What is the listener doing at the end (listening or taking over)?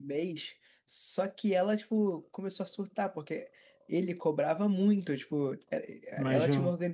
listening